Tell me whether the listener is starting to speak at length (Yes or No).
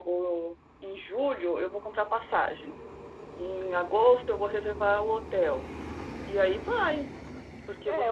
Yes